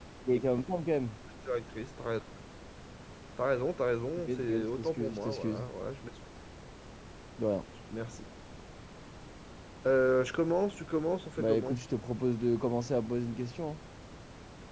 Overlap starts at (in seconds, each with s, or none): 4.2 s